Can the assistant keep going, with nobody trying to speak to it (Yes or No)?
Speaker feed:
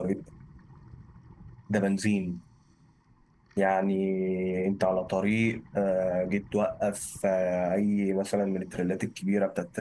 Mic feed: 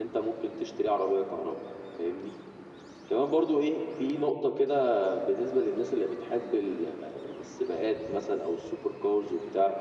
No